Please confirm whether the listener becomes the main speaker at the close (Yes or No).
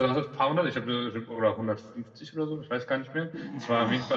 No